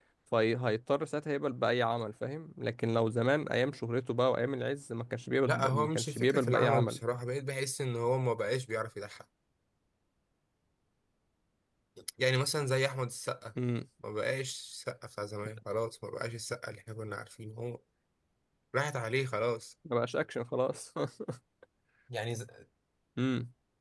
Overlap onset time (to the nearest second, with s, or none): 5 s